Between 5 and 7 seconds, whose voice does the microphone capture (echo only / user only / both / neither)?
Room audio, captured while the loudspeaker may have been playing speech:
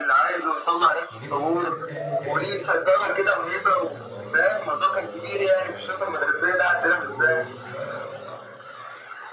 both